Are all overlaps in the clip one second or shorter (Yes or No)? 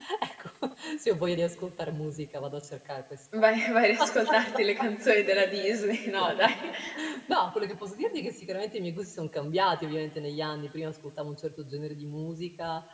Yes